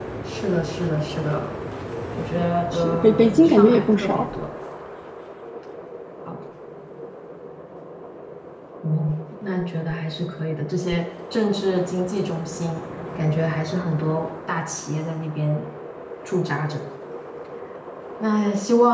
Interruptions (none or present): present